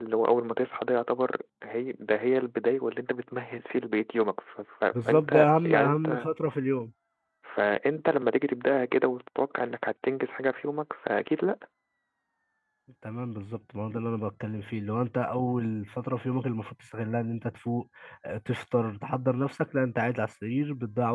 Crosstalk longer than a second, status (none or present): present